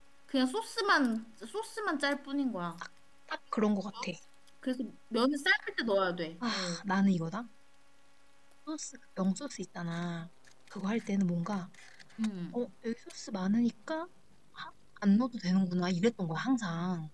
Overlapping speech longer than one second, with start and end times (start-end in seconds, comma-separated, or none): none